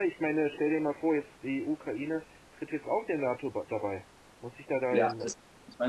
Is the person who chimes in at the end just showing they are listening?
No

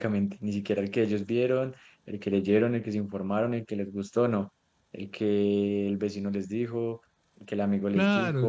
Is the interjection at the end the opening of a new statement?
Yes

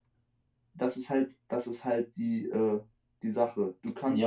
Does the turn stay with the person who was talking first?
No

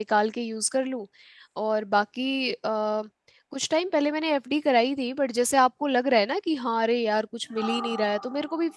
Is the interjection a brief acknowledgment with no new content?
Yes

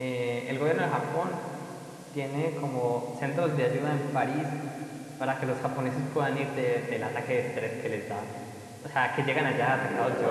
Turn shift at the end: No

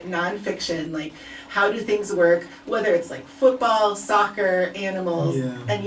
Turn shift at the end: No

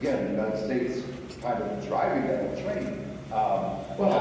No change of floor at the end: No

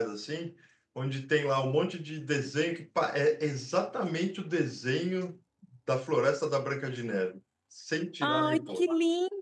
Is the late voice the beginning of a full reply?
Yes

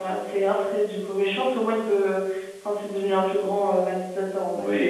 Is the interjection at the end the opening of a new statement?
Yes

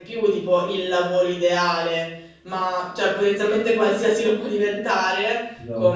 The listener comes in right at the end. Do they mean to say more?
No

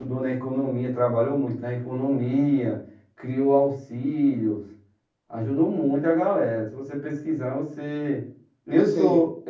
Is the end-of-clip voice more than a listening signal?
No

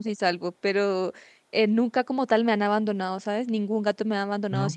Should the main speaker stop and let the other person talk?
No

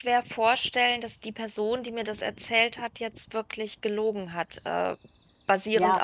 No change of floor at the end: Yes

